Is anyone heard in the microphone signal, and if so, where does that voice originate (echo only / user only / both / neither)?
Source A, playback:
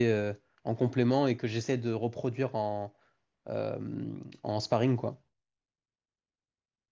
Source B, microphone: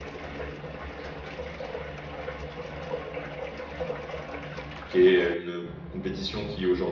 user only